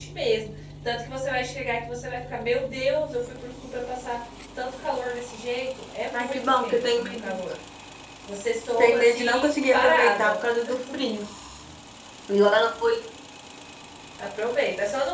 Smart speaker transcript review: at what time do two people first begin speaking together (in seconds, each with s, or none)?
6.1 s